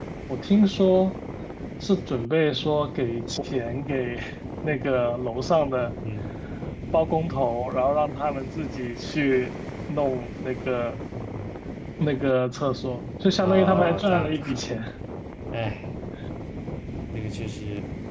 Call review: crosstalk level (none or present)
present